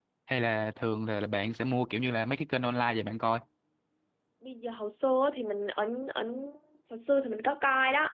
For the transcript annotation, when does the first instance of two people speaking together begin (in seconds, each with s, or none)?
none